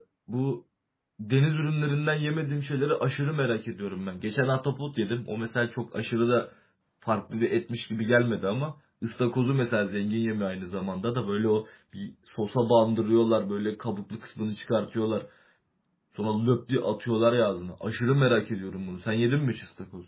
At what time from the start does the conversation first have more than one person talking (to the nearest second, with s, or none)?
none